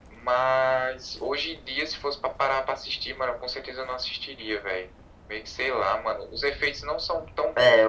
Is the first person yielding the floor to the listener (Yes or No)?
Yes